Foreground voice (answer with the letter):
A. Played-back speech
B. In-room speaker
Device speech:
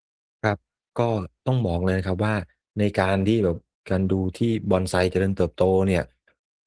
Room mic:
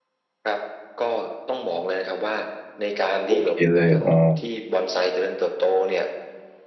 B